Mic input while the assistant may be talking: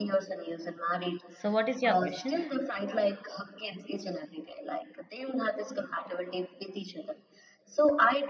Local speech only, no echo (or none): So, what is your question?